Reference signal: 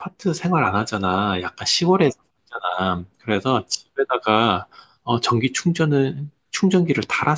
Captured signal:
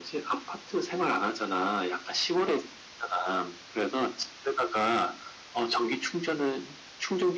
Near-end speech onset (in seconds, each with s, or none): none